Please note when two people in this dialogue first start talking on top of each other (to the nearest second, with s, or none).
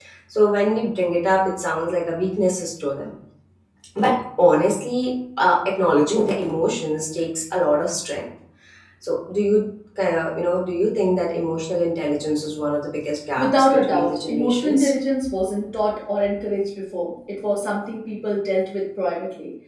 13 s